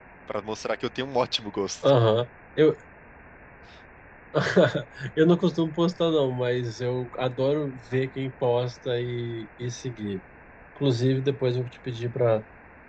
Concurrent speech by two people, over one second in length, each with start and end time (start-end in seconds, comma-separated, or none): none